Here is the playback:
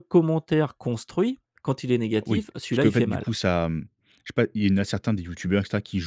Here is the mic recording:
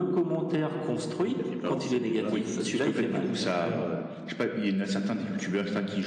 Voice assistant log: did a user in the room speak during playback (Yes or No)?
Yes